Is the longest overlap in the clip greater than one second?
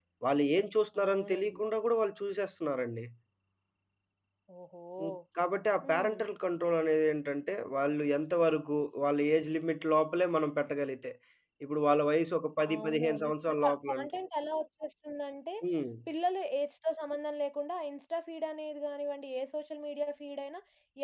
Yes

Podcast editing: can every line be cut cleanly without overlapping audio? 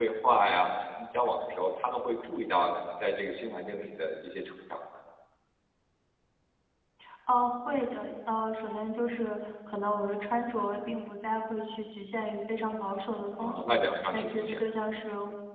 No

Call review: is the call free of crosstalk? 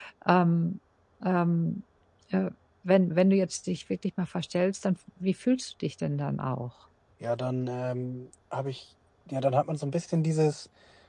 Yes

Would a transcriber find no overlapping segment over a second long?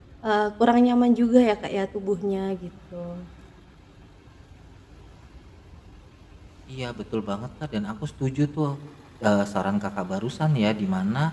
Yes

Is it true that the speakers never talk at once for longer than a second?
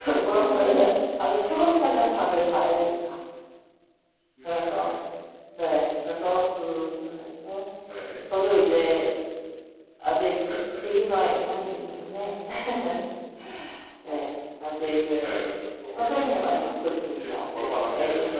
No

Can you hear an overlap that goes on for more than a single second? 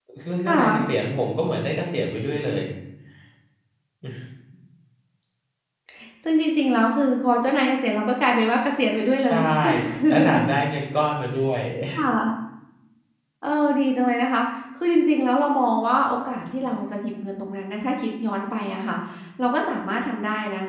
No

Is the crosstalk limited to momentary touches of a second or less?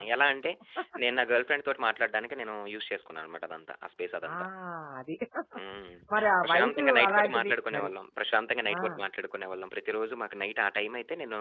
No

